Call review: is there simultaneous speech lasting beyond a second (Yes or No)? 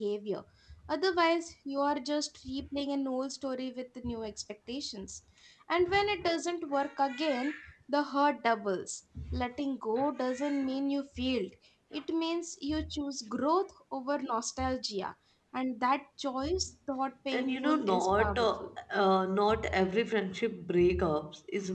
Yes